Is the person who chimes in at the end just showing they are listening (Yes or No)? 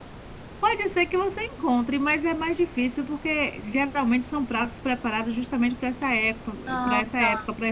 Yes